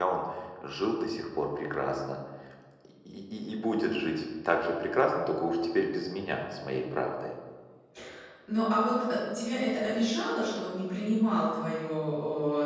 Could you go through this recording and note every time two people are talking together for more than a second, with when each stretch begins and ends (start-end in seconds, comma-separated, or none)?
none